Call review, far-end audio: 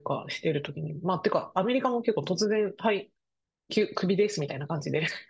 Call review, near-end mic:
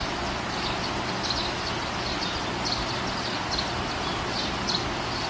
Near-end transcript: none

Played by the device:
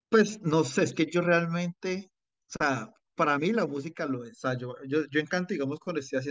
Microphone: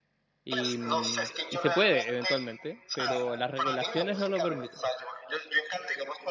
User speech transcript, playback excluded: y, mm, y se puede eventualmente, pero las regulaciones no lo permiten

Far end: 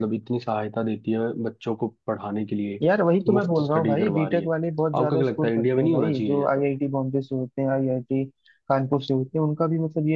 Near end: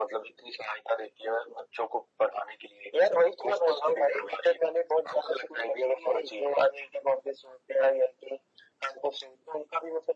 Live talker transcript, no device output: none

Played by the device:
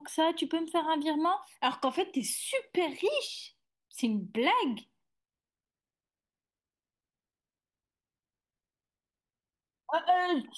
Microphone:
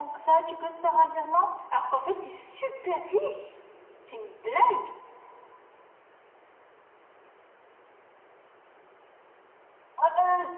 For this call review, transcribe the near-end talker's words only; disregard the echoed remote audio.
none

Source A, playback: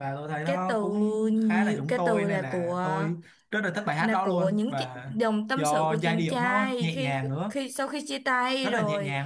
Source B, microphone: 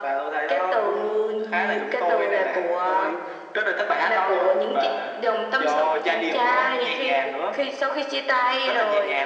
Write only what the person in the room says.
none

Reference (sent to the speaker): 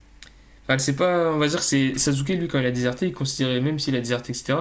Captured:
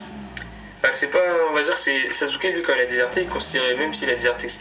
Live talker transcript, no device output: none

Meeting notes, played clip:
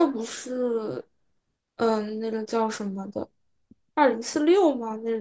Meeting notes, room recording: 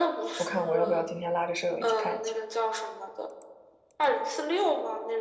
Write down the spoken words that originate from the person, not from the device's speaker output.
我看我要不要今天拉着舍友一起看一下？

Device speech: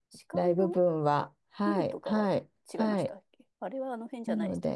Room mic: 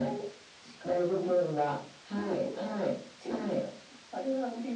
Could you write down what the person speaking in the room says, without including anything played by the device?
none

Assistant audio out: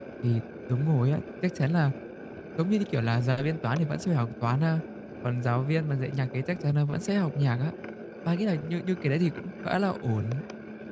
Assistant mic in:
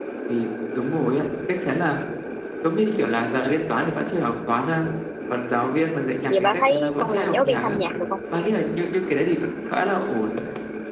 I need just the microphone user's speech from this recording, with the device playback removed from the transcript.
vậy bà thấy con làm giáo viên thanh nhạc được không

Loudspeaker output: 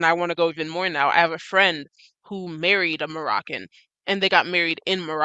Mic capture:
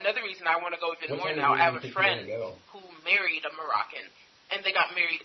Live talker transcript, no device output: what time of year do you think you'd want to go?

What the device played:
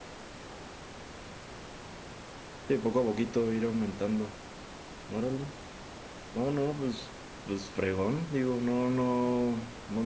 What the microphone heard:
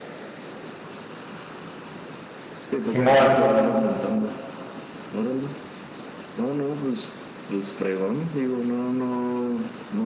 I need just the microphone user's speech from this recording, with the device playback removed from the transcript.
Simón,

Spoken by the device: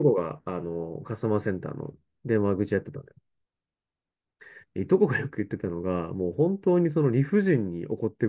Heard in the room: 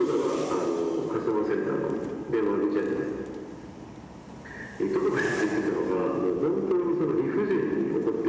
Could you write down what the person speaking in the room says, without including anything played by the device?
none

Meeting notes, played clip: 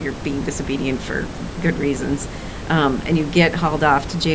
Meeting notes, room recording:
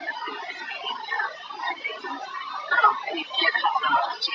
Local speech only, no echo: none

